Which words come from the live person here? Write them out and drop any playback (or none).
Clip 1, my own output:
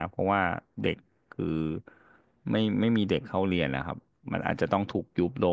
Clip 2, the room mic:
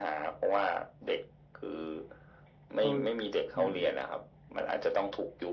โอ้อืม